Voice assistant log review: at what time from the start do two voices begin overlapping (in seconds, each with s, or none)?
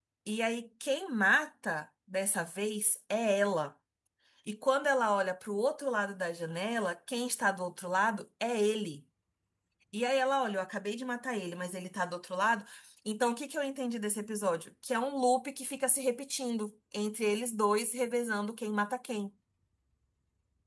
none